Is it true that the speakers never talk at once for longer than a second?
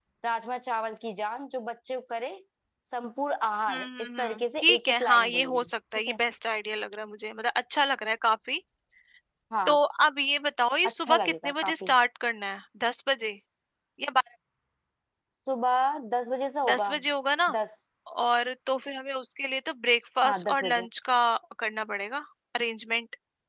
No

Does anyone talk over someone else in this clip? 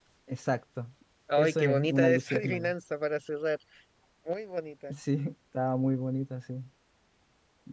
Yes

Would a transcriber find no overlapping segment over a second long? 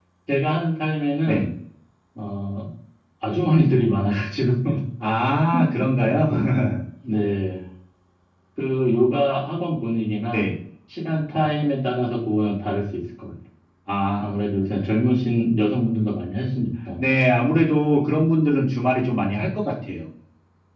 Yes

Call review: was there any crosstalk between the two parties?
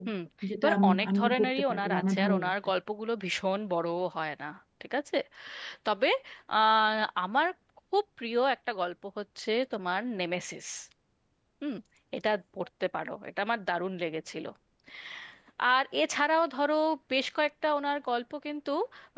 Yes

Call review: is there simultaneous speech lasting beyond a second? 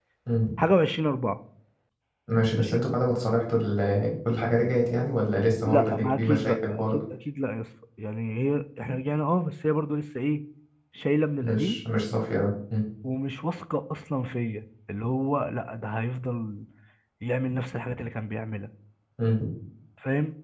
Yes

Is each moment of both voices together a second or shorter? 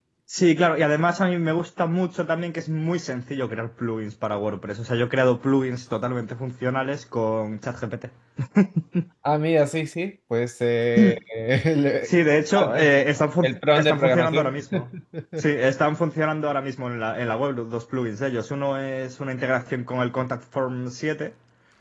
No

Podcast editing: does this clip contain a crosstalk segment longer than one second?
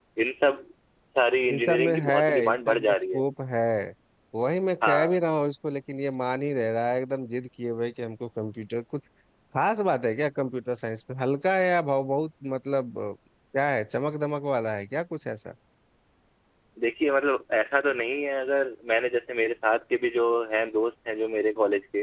Yes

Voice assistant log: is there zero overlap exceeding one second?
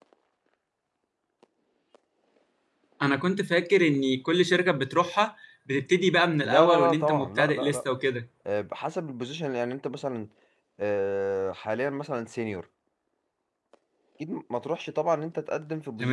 No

